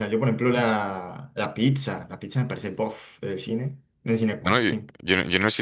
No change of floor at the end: No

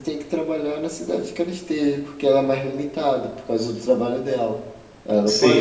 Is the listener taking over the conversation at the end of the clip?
Yes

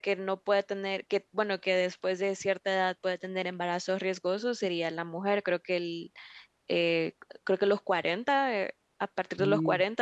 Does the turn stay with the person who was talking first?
Yes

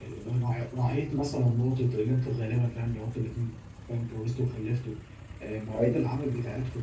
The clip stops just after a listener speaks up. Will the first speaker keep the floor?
Yes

